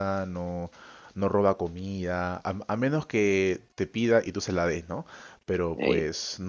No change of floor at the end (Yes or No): Yes